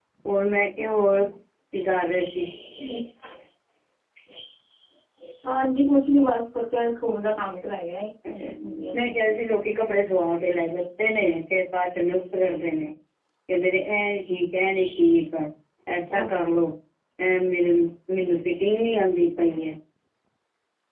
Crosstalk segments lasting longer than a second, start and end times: none

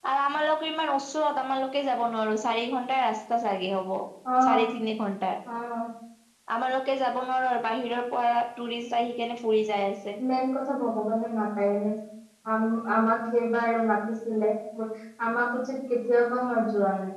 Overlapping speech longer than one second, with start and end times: none

